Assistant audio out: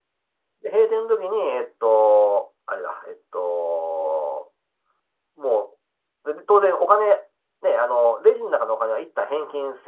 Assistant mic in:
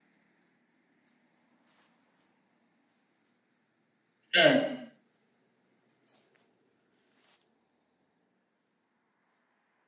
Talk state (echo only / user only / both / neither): user only